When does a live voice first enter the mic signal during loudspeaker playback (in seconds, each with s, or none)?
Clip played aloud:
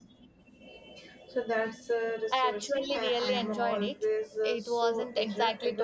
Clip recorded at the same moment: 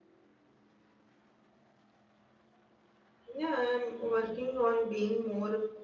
3.3 s